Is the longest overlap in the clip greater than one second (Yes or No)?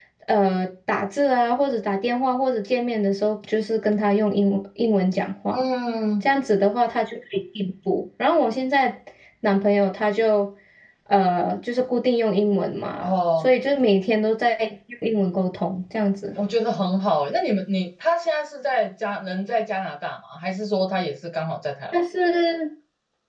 No